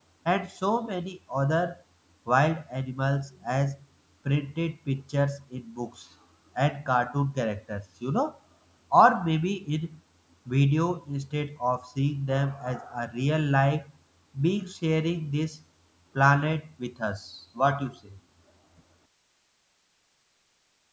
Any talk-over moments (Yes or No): No